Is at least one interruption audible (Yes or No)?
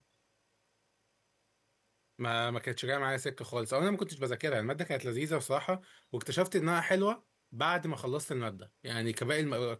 No